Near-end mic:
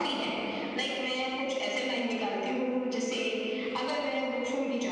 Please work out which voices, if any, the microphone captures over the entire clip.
echo only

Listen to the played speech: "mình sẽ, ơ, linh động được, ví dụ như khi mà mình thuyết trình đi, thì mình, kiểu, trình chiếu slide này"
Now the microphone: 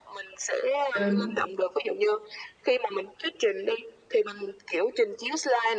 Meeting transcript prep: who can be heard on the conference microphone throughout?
both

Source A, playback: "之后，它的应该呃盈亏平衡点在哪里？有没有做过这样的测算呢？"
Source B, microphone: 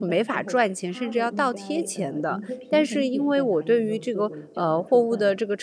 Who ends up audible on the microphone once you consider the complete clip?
both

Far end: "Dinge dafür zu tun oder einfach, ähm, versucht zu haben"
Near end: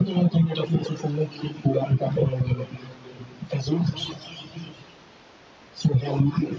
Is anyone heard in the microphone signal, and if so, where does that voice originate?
echo only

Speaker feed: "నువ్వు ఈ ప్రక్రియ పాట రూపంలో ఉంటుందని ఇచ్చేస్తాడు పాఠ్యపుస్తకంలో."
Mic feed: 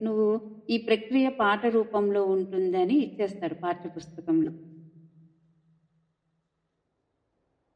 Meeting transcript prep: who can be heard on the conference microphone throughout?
echo only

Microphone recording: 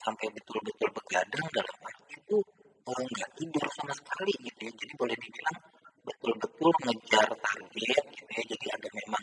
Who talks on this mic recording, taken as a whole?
echo only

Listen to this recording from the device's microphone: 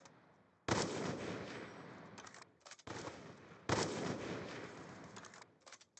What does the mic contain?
neither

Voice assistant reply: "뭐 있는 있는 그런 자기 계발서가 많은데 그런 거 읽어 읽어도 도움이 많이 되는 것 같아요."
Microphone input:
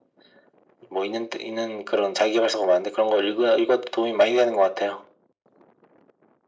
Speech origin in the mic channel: echo only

